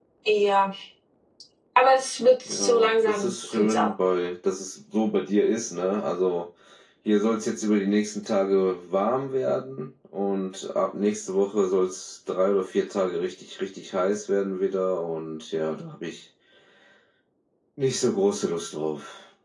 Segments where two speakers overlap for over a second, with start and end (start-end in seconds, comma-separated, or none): 2.5-3.9